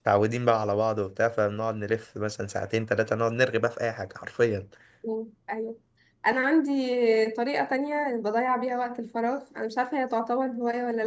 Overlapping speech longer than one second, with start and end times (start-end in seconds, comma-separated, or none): none